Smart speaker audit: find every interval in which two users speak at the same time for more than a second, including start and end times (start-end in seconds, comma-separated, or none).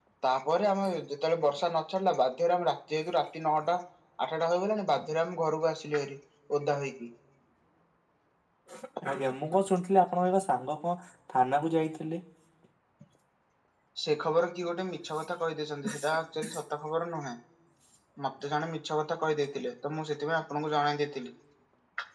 none